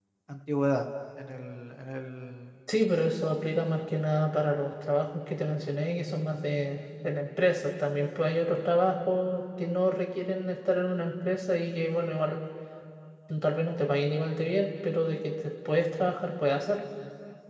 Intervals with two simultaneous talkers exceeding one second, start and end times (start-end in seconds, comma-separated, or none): none